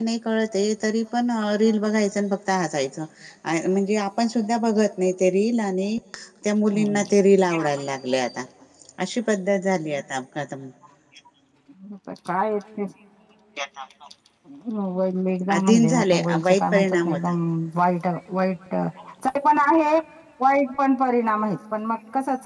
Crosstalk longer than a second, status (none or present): present